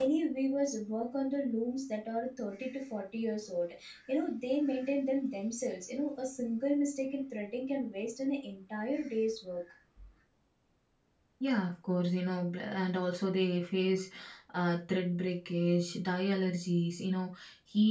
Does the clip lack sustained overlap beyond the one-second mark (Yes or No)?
Yes